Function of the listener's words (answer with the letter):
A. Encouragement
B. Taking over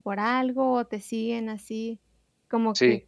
A